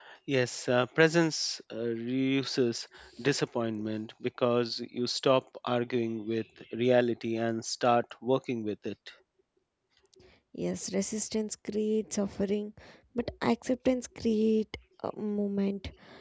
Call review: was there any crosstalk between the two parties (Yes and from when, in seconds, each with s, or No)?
No